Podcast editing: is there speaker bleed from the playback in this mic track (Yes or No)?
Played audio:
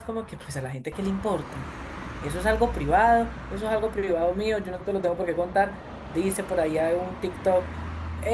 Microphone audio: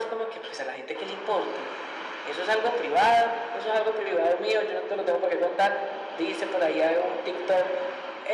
Yes